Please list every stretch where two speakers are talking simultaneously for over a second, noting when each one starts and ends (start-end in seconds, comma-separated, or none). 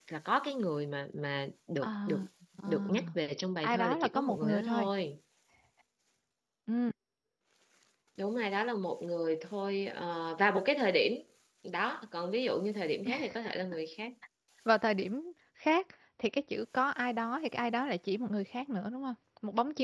3.6-4.9